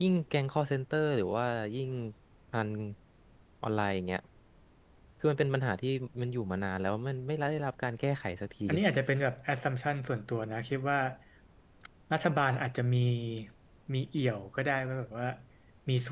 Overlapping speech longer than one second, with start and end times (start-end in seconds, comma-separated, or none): none